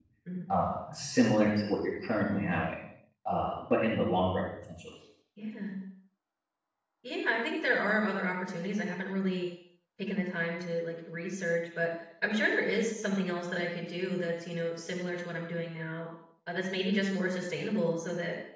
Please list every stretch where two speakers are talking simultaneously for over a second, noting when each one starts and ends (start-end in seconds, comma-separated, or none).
none